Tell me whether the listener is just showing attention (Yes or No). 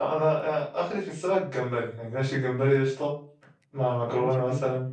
Yes